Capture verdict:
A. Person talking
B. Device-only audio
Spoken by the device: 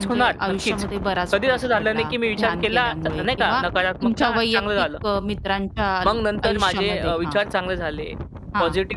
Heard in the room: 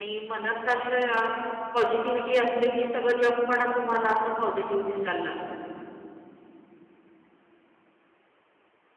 A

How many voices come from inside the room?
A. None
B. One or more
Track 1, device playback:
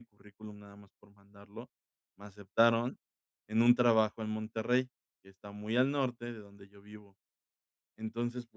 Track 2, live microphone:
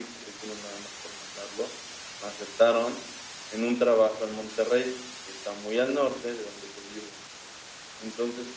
A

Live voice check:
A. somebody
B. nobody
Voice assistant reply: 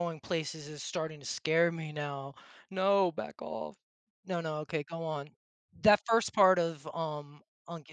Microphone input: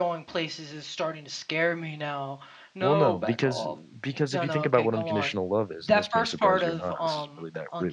A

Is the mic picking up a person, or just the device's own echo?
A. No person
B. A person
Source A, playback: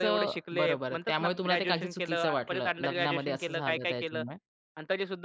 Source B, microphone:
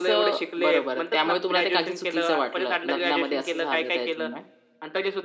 A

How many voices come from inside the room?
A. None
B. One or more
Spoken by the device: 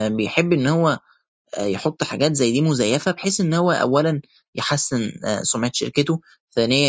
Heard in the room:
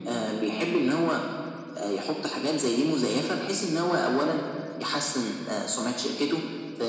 A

